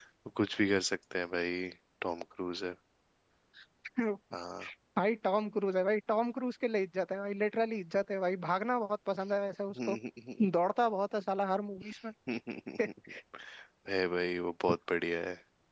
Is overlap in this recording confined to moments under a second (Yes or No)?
Yes